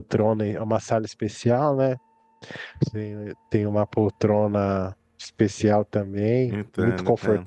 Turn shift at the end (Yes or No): No